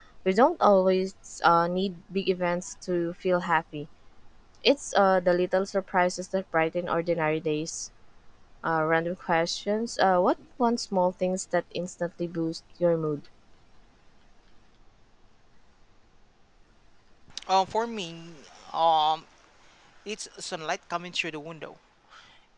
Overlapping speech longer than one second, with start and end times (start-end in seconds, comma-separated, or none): none